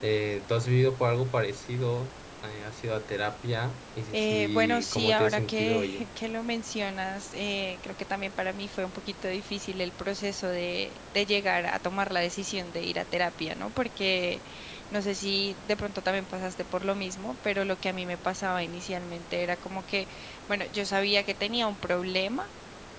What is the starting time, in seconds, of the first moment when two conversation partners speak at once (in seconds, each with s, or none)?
4.1 s